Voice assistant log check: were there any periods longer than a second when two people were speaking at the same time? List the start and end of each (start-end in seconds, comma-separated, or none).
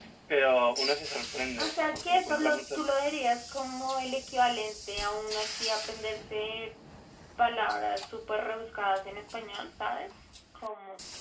1.6-2.8